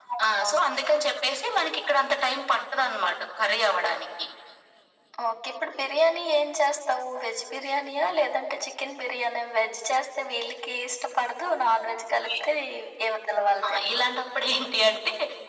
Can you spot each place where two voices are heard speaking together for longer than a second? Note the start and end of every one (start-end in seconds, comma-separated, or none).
none